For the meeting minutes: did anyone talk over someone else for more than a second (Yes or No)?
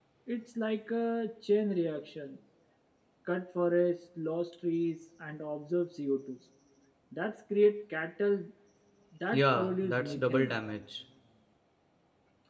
Yes